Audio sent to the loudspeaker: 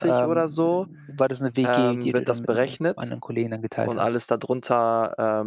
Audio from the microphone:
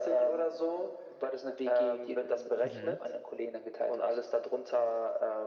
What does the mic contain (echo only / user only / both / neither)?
both